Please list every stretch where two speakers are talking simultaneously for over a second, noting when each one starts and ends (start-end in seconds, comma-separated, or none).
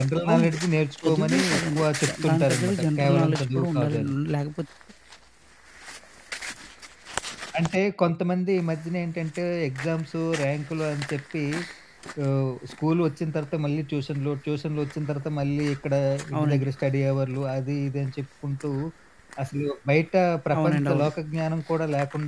1.0-4.1